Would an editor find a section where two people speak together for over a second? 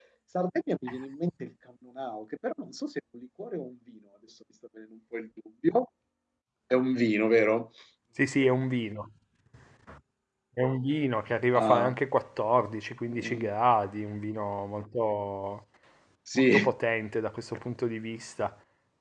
No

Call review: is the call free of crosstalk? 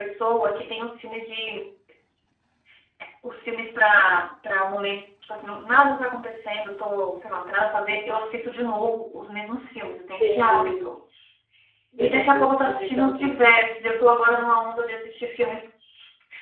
No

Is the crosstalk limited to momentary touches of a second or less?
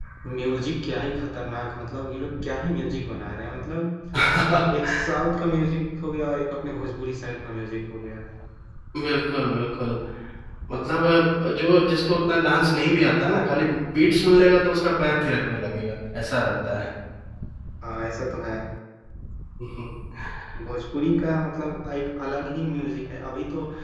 Yes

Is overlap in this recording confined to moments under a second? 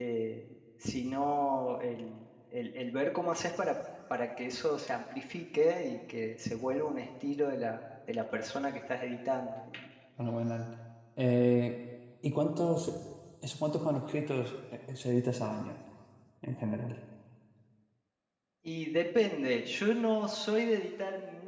Yes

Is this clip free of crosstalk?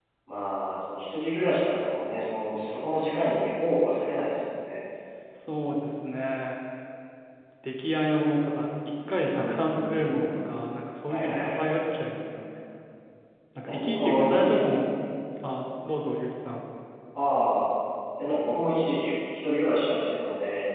No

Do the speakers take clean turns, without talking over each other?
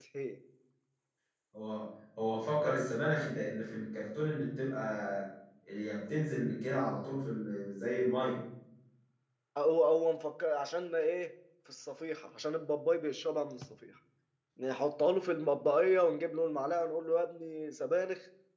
Yes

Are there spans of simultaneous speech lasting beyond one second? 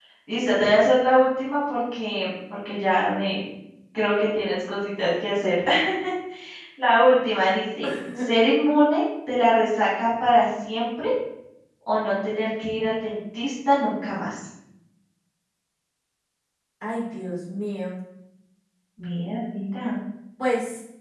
No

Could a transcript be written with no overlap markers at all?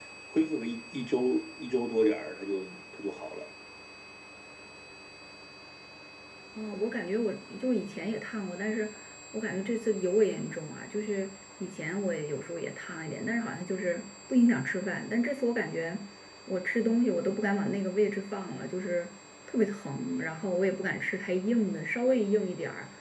Yes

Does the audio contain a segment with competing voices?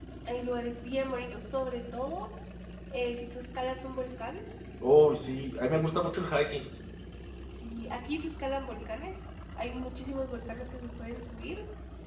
No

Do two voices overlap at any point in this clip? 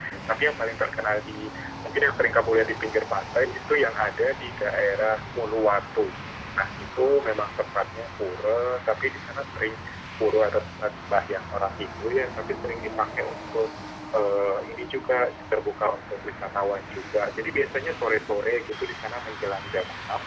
No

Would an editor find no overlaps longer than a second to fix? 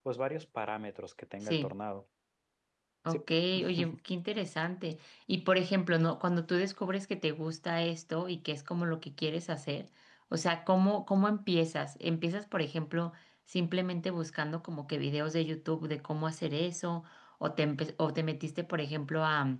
Yes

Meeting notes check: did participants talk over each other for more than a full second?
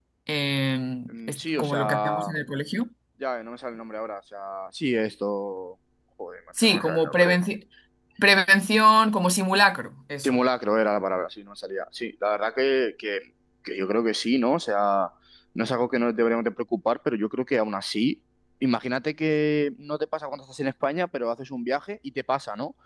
Yes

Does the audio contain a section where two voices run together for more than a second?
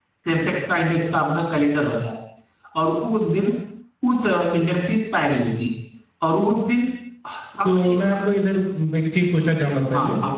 No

